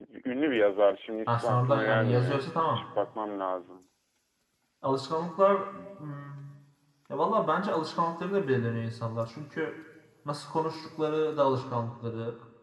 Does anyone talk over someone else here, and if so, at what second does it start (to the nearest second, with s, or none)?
1 s